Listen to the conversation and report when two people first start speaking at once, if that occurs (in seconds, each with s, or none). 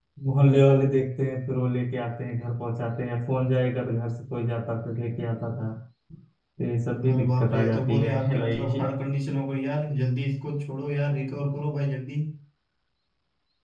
7.1 s